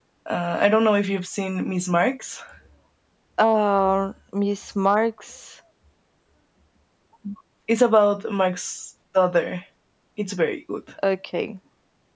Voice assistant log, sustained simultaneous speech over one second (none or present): none